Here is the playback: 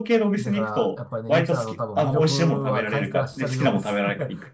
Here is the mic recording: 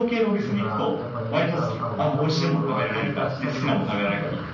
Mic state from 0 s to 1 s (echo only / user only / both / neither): echo only